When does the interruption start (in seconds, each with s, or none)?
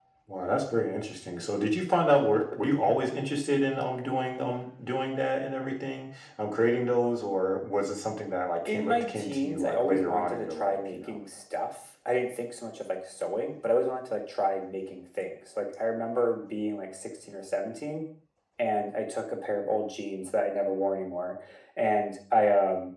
8.7 s